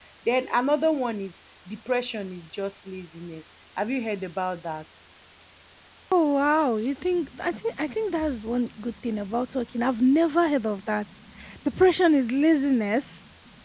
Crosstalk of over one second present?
No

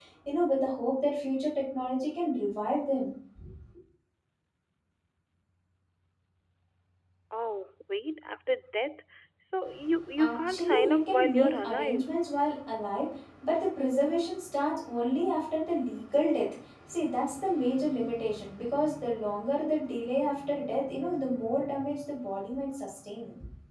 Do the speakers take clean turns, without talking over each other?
No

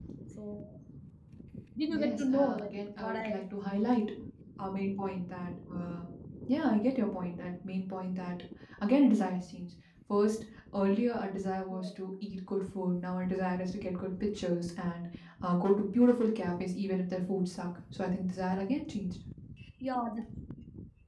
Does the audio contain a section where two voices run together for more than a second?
Yes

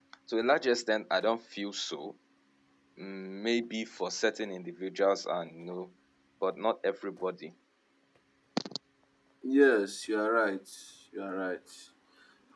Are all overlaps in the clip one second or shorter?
Yes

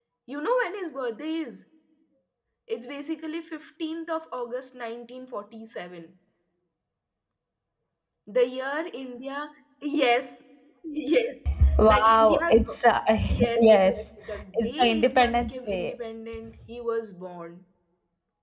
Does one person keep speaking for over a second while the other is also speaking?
Yes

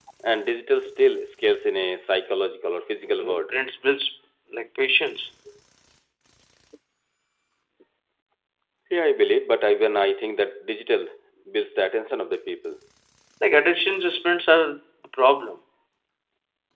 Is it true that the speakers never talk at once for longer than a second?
Yes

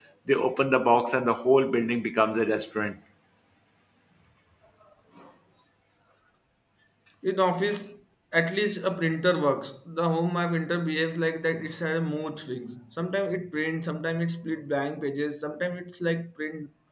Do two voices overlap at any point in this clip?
No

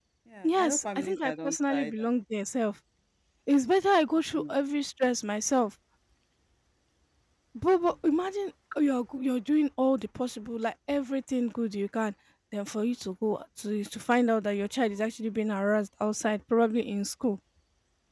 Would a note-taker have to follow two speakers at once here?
Yes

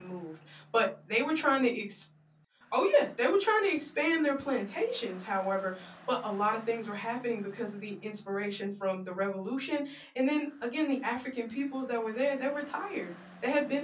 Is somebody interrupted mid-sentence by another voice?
No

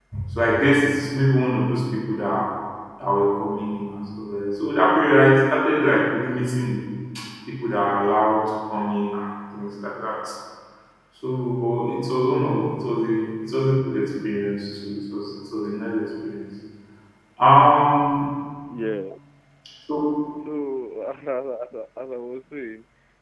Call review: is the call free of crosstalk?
Yes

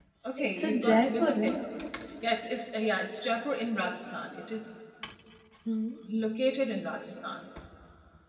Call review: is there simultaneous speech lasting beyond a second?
Yes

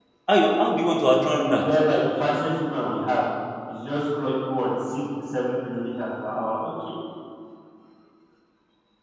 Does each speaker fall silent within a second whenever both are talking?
Yes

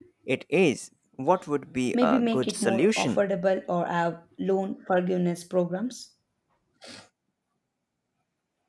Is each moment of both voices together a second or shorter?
No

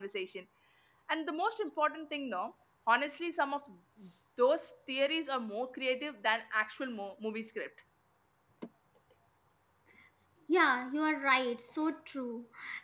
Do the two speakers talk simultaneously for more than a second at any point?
No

